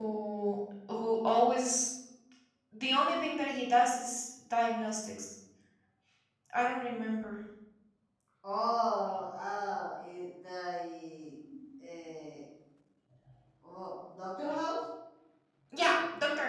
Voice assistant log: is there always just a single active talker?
Yes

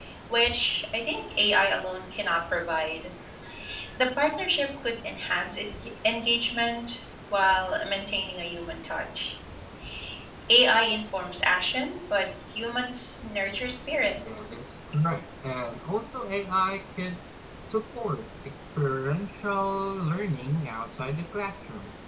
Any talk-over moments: No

